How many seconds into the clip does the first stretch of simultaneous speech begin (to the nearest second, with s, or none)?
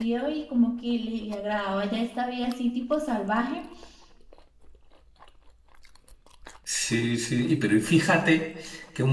none